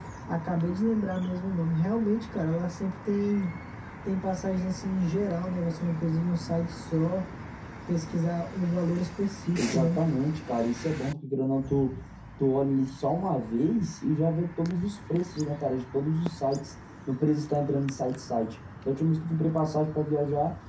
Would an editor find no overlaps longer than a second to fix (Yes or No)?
Yes